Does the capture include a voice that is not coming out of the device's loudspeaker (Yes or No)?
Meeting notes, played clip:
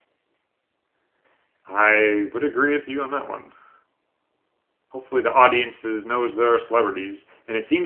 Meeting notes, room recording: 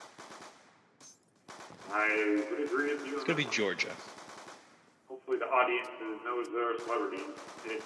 Yes